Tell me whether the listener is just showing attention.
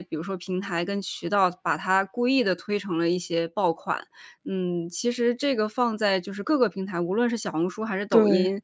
Yes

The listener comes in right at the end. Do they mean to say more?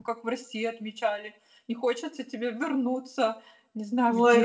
Yes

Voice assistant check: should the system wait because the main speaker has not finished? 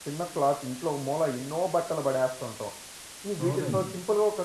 Yes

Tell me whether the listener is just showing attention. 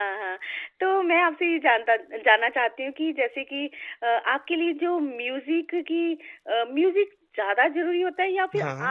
Yes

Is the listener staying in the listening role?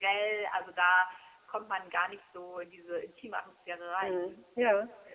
No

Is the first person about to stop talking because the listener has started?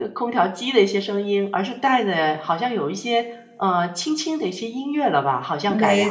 Yes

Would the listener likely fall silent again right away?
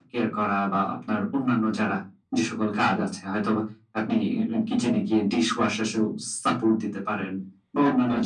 Yes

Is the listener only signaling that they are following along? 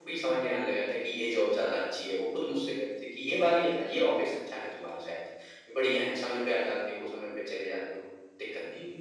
No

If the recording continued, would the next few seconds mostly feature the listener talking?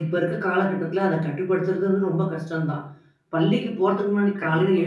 No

